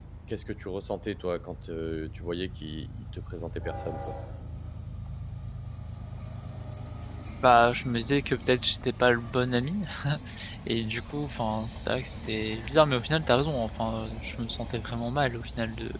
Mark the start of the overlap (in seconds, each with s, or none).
none